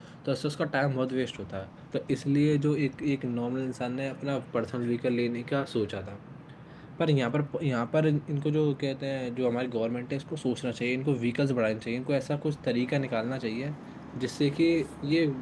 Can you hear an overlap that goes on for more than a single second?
No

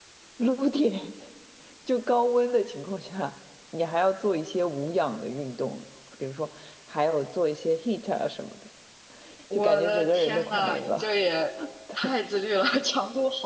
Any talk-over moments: Yes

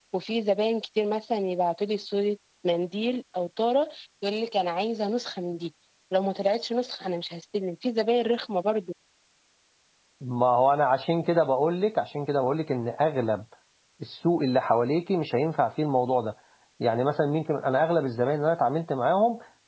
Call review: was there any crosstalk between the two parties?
No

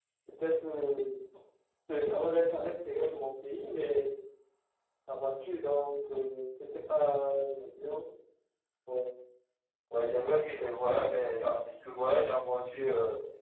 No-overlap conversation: Yes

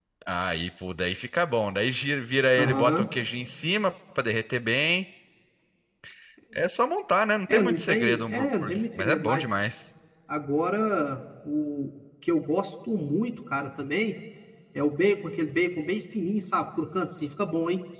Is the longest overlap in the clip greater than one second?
Yes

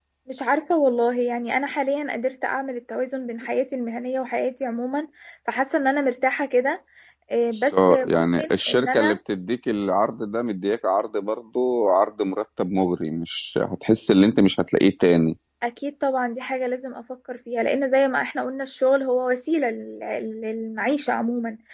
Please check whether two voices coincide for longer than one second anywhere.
Yes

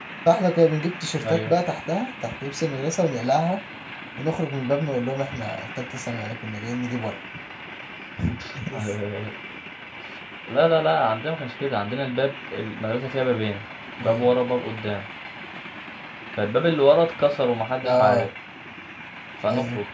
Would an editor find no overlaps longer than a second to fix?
Yes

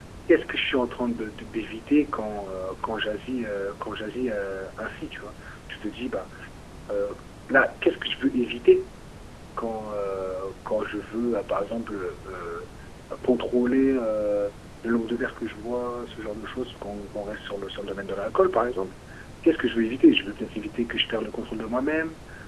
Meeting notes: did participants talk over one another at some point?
No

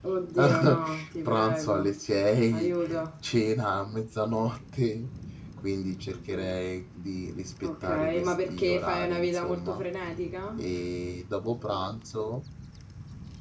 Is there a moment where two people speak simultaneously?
Yes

